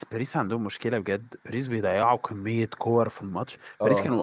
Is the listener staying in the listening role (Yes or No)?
Yes